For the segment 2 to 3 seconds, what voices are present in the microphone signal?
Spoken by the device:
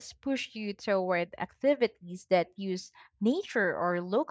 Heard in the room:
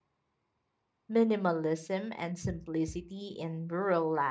user only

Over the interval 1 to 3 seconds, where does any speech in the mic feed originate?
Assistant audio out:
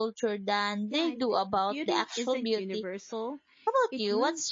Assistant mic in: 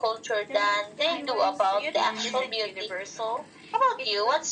both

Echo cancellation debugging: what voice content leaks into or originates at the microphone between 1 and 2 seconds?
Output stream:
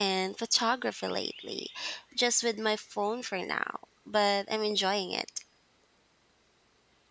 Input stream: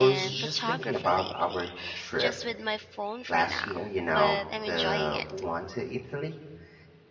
both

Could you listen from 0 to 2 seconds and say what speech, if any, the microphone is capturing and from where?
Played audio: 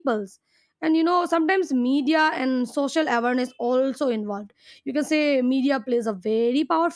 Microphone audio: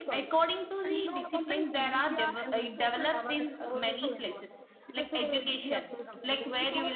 both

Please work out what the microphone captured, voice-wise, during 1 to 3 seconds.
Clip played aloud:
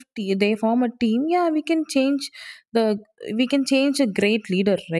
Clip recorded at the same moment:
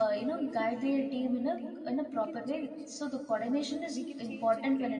both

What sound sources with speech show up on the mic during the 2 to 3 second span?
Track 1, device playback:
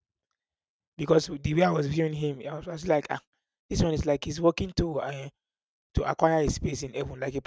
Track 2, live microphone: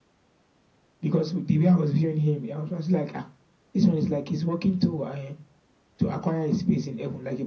echo only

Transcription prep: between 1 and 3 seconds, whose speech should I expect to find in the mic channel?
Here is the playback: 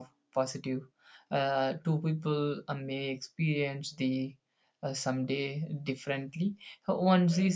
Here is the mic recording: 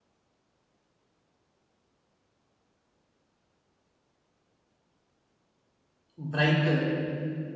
neither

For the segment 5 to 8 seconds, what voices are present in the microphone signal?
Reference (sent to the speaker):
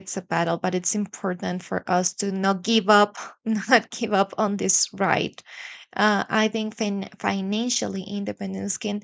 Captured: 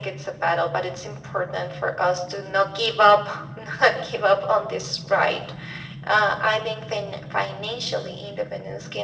echo only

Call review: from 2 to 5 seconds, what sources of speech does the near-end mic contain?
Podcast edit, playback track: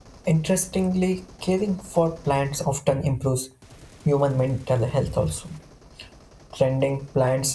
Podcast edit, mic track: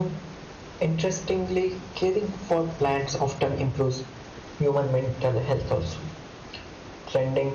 echo only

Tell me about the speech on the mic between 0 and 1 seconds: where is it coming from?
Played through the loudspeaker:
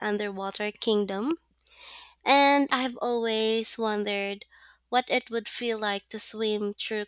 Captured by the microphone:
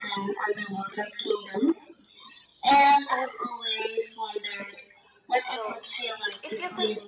echo only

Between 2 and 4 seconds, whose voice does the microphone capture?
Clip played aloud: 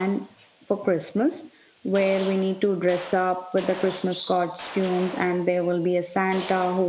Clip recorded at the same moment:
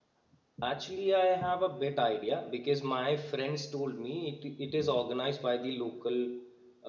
user only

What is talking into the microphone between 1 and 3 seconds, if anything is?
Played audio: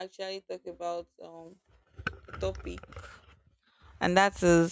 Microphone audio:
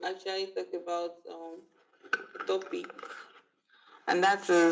echo only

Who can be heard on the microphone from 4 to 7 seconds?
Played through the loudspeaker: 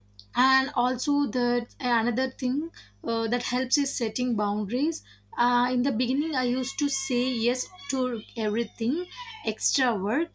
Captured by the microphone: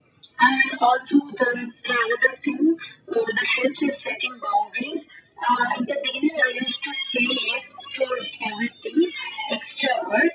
echo only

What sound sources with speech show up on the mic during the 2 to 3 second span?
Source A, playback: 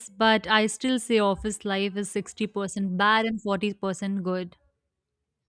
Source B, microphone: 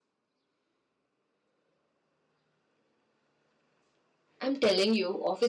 neither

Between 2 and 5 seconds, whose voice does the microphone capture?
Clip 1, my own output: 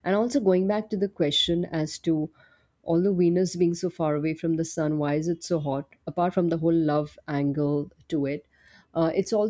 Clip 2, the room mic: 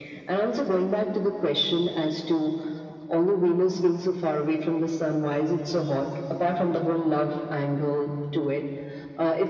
echo only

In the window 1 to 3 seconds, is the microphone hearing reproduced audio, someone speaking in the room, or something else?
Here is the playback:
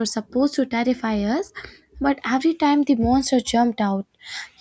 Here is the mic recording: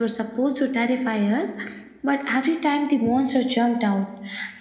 echo only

